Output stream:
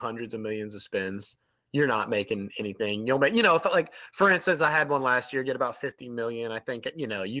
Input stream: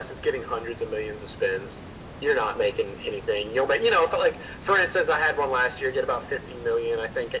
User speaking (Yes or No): No